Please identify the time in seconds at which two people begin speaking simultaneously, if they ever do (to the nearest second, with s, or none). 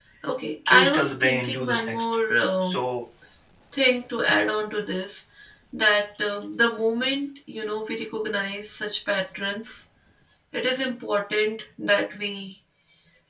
1 s